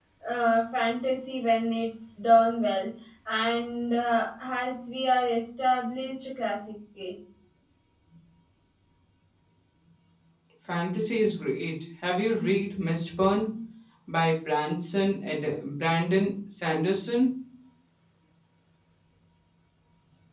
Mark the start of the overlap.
none

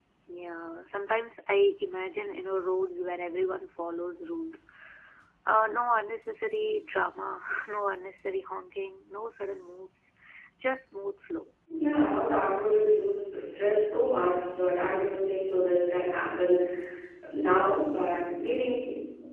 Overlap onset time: none

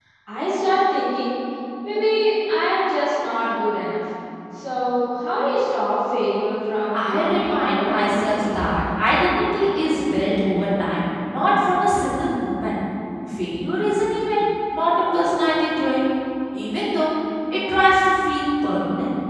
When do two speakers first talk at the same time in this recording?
6.9 s

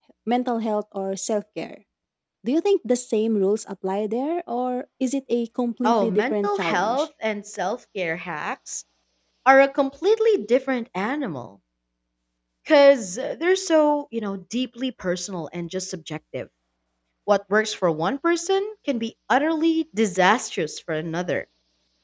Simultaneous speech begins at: 5.8 s

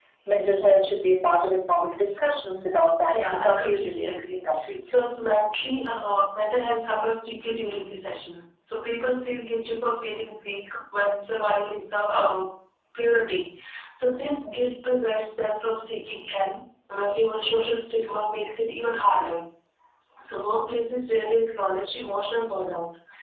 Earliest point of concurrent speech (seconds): 3.1 s

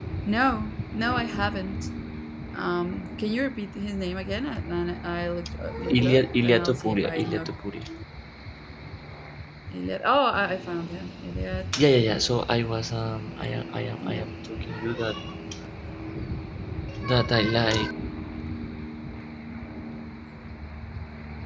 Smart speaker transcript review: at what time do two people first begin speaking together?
5.9 s

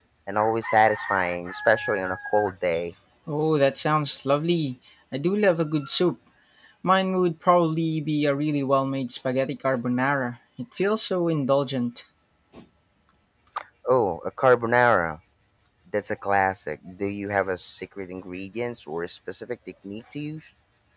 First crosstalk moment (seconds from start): none

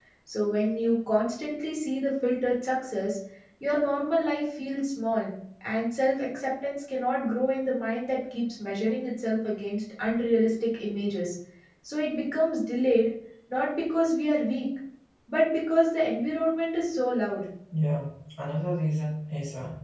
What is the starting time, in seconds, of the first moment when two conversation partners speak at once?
none

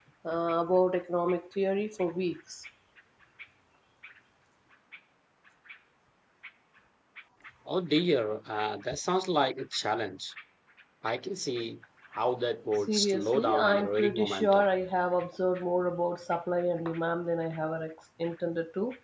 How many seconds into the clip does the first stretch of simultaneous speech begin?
12.9 s

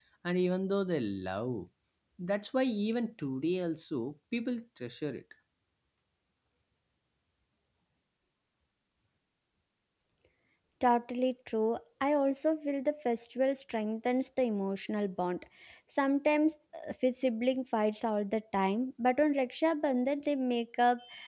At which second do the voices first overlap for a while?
none

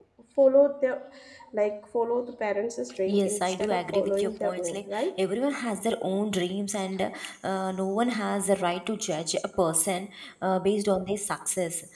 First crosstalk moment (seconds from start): 3.1 s

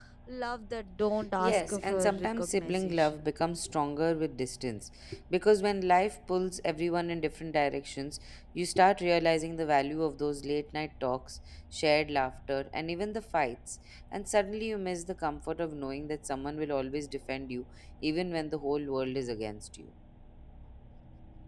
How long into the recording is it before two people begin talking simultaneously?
1.4 s

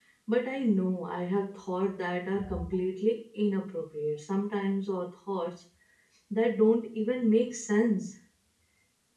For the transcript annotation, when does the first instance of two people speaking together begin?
none

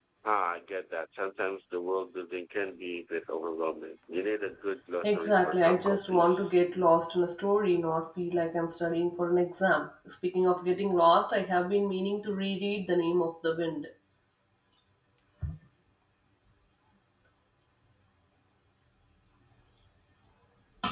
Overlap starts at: 5.0 s

